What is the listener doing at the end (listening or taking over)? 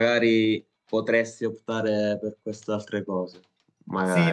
taking over